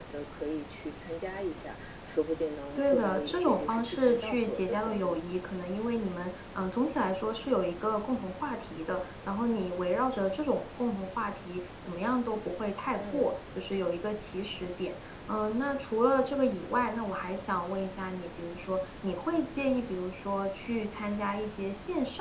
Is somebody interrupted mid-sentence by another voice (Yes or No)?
Yes